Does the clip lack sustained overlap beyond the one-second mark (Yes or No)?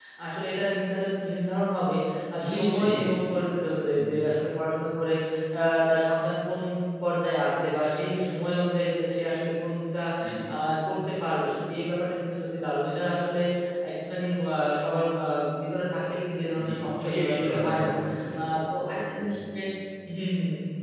No